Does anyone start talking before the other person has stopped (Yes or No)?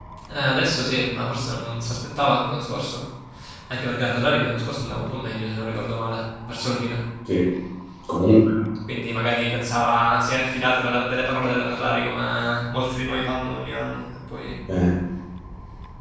No